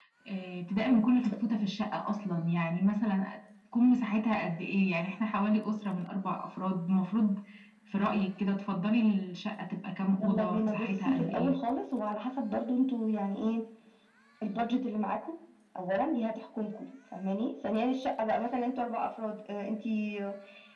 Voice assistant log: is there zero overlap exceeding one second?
No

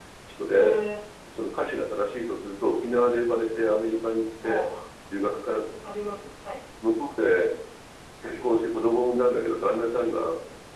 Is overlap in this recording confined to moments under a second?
Yes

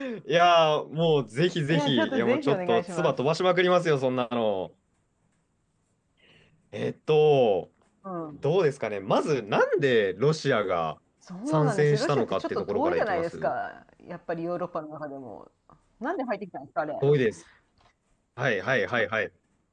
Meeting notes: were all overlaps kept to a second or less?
No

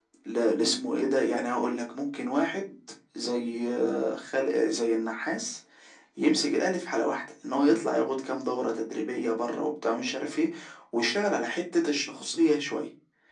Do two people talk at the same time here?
No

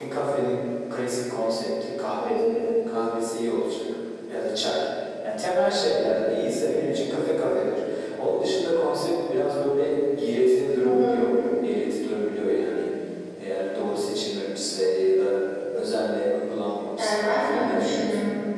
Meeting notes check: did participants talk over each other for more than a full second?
Yes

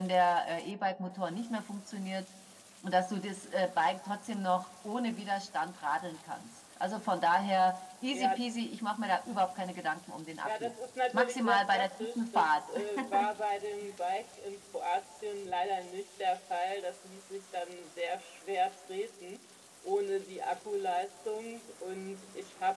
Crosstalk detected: Yes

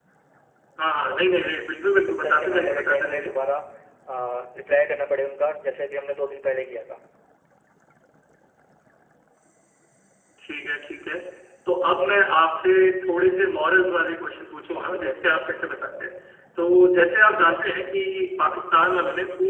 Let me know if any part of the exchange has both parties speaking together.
Yes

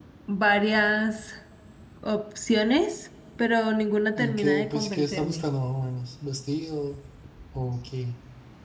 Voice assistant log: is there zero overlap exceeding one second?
No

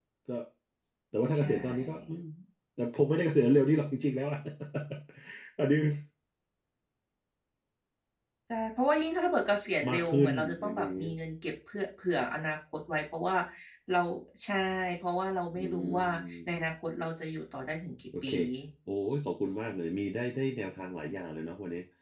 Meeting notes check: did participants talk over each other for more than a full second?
Yes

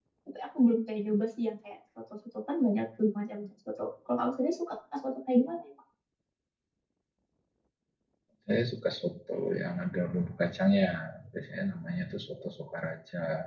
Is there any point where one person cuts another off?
No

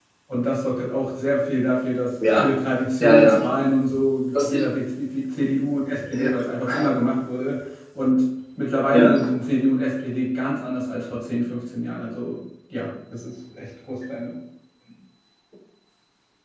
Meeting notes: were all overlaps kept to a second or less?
Yes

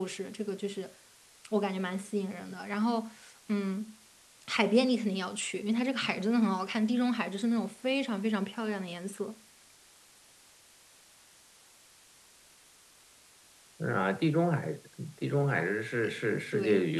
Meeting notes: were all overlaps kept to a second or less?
Yes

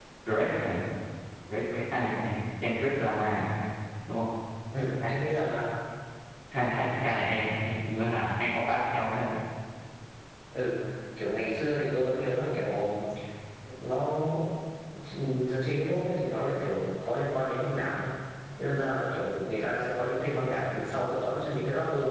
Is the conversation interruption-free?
Yes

